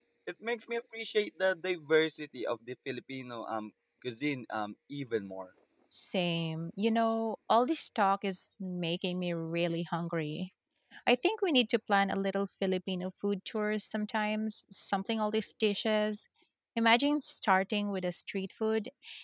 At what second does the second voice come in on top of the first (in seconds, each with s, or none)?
none